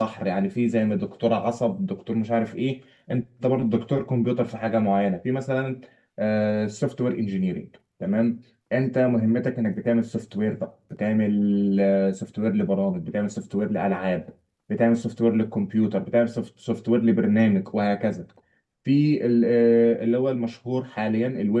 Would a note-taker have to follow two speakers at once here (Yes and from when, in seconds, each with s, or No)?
No